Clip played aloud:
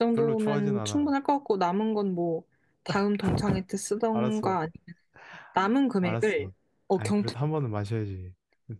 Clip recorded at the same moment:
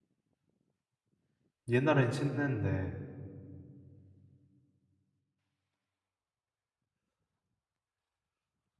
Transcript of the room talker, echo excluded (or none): 옛날엔 친했는데